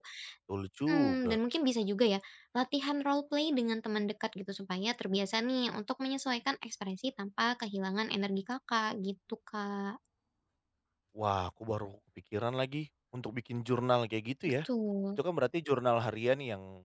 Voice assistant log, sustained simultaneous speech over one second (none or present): none